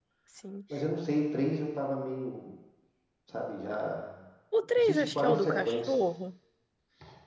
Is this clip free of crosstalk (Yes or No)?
No